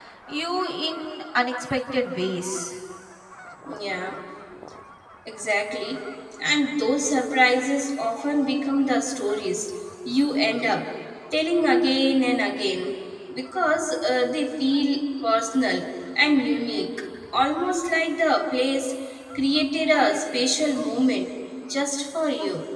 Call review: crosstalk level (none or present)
none